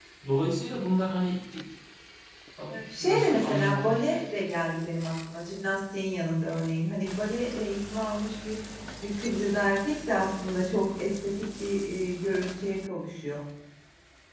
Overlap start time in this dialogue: 2.6 s

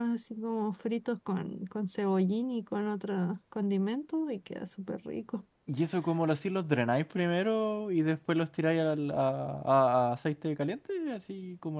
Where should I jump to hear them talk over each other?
none

